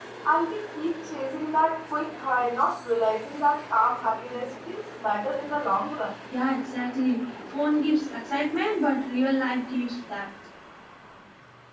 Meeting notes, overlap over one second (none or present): none